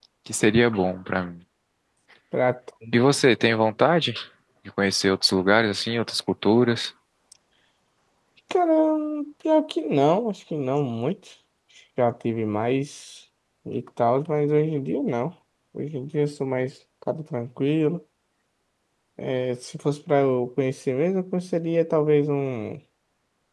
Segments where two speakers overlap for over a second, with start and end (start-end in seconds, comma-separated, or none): none